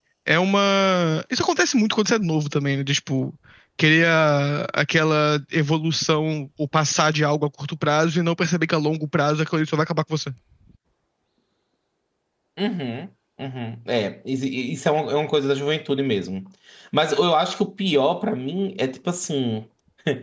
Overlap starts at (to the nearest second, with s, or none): none